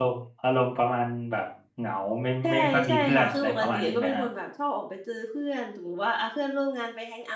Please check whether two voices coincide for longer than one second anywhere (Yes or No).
Yes